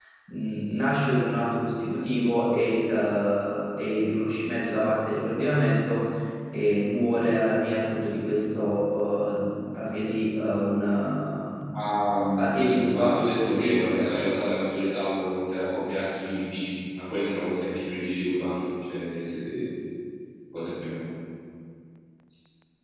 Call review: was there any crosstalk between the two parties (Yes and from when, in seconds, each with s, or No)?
Yes, from 12.9 s